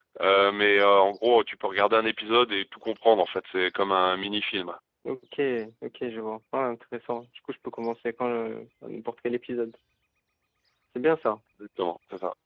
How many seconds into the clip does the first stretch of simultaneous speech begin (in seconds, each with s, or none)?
none